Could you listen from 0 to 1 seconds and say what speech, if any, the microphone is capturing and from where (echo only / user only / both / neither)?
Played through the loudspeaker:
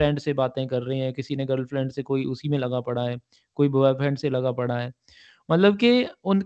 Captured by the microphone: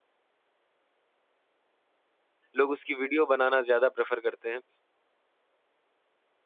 neither